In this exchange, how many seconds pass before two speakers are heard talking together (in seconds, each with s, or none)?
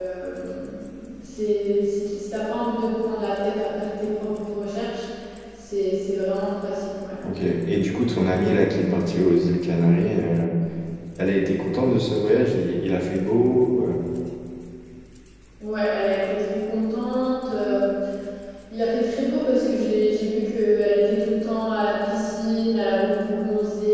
none